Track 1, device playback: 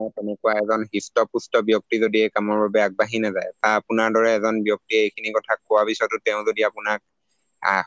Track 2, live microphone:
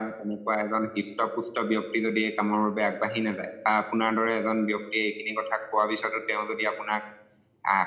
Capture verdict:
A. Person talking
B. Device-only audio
B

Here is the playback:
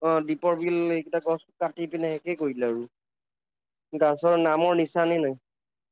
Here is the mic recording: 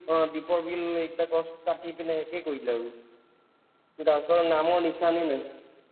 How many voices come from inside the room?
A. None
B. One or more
A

